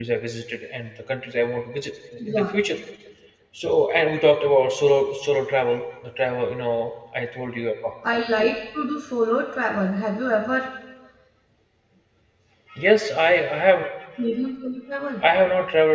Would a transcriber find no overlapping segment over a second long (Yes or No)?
Yes